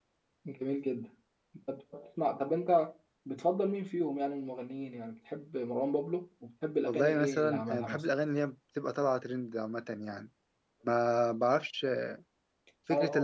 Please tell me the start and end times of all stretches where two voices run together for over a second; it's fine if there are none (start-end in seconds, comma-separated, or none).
6.8-8.1